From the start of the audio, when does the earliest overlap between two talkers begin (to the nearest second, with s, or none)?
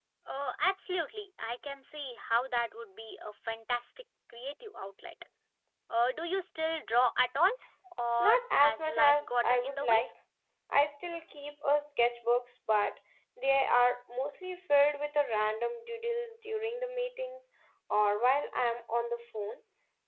8 s